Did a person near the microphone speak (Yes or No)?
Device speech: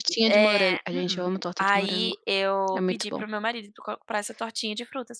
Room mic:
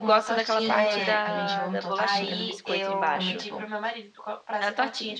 Yes